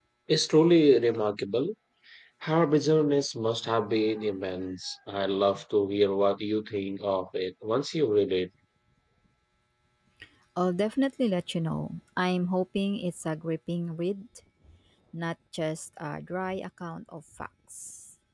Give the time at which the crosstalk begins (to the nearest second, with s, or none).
none